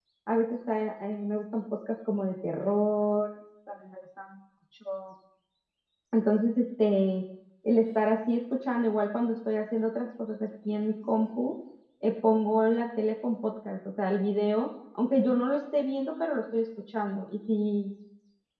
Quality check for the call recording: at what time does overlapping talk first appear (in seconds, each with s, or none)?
none